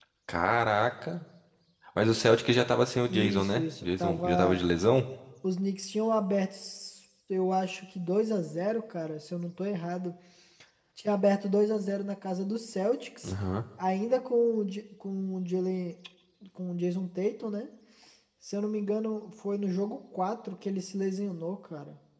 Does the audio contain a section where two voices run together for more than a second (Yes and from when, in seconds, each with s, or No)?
Yes, from 3.1 s